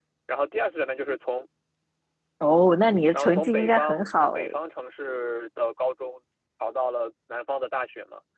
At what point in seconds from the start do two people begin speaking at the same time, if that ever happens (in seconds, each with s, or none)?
3.1 s